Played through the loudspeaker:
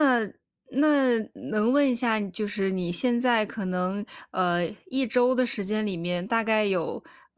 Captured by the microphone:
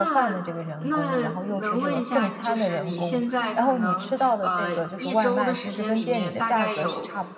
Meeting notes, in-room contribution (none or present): present